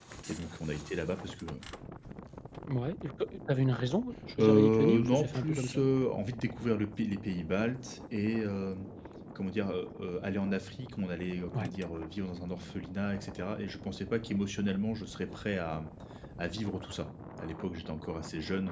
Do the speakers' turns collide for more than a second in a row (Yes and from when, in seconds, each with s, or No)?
Yes, from 4.4 s